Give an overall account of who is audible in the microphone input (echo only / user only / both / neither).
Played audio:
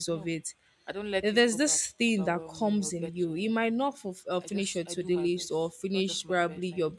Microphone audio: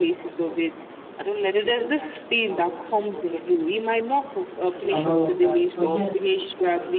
both